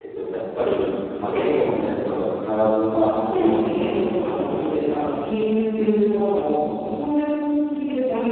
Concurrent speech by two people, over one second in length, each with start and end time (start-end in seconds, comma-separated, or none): 3.1-4.3